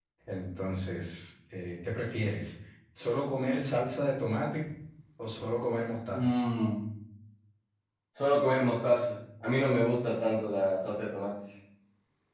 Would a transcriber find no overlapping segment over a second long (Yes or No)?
Yes